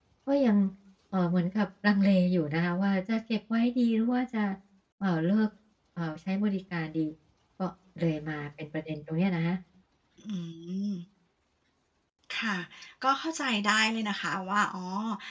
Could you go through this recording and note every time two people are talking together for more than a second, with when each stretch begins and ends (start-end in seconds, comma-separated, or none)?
none